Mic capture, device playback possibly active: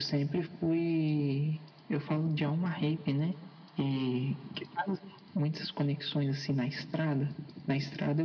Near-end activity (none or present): none